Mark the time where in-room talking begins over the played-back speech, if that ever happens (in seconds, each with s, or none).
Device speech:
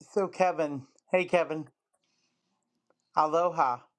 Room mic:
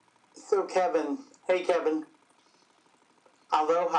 none